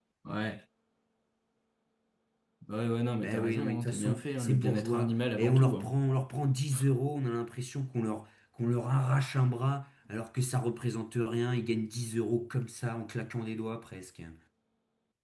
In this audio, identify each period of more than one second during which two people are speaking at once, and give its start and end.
3.2-5.9

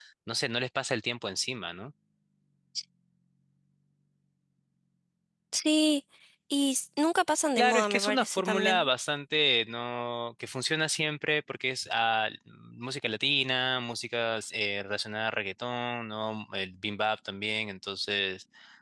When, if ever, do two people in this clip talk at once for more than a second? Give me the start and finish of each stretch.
7.6-8.9

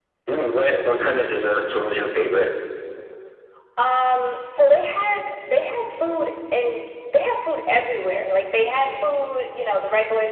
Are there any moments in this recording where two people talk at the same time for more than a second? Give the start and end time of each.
none

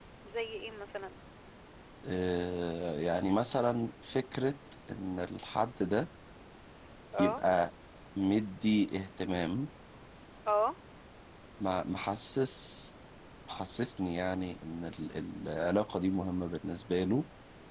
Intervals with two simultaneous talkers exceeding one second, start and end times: none

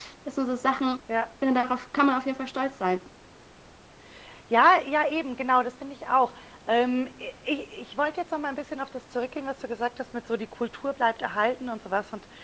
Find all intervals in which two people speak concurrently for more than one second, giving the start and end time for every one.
none

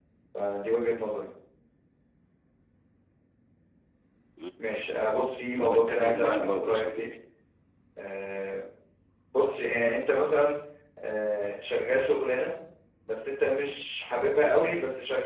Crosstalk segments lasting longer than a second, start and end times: 5.6-7.0

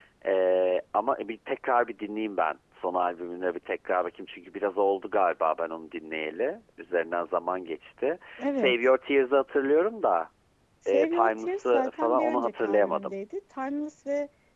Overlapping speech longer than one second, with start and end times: 10.9-13.1

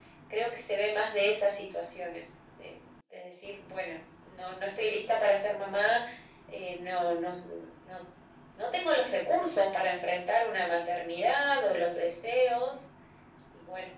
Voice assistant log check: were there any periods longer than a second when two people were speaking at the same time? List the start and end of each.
none

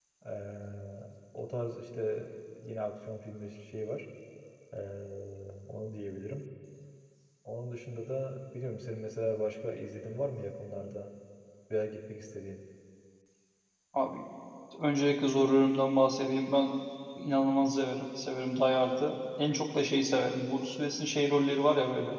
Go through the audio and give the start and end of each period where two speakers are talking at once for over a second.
none

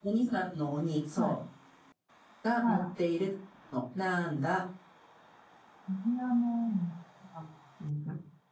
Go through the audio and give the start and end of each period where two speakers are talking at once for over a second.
none

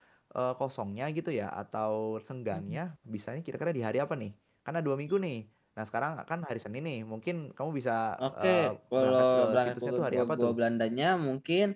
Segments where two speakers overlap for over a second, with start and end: 8.9-10.5

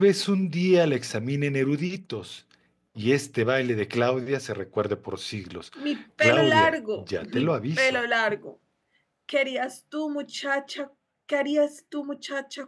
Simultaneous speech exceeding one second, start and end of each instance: 6.2-8.0

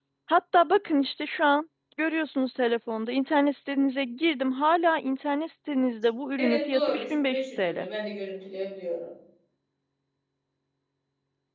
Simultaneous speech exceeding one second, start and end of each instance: 6.4-7.9

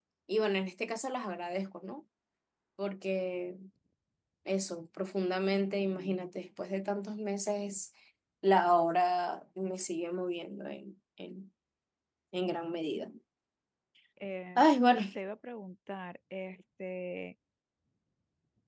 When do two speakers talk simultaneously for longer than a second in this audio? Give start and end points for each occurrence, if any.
none

